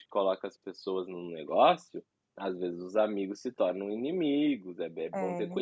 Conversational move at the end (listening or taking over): taking over